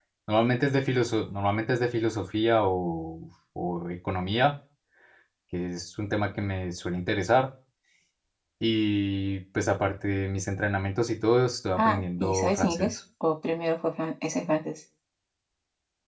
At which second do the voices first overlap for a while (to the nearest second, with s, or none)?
12 s